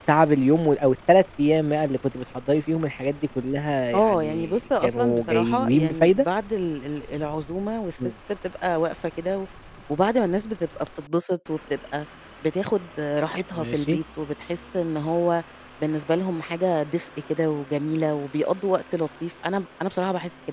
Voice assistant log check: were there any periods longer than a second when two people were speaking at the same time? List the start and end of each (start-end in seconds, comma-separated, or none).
3.9-6.2